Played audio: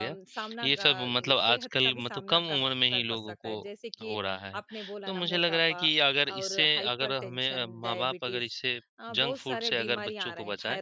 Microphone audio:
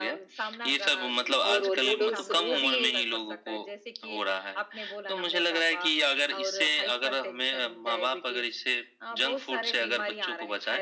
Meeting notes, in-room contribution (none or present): present